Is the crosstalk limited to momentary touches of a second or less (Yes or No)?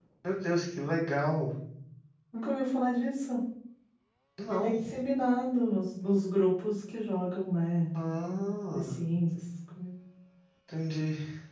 Yes